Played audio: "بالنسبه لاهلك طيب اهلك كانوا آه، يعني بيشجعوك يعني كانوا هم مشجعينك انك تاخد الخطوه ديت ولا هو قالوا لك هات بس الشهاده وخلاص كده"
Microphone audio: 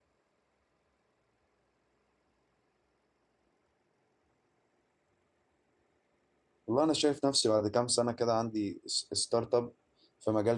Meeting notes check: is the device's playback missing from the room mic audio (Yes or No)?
Yes